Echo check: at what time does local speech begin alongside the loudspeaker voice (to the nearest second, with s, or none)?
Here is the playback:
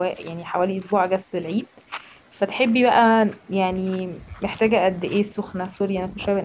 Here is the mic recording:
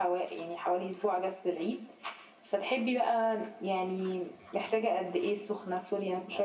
none